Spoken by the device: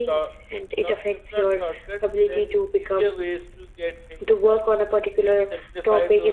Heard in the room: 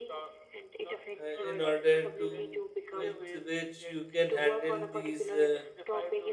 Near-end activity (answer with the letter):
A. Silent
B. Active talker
B